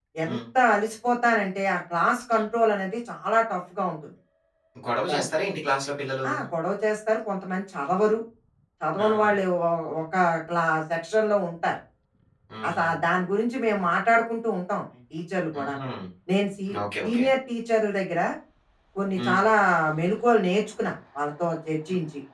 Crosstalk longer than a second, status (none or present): none